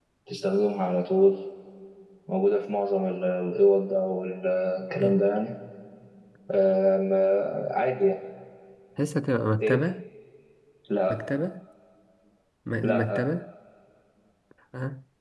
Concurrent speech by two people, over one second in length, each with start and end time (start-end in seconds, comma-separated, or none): none